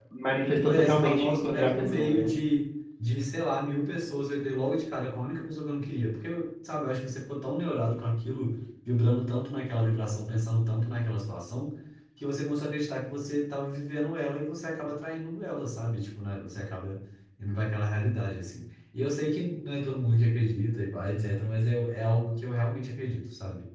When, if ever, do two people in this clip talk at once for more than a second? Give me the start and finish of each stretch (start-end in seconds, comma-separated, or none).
0.6-2.3